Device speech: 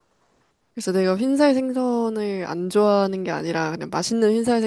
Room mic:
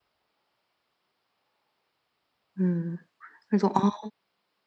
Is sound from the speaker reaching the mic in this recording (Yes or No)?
No